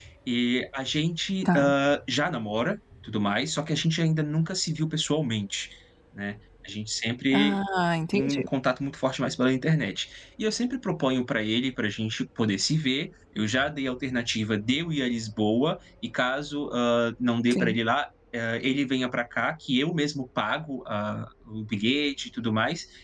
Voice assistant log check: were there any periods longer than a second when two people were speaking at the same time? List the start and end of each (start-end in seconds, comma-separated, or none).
none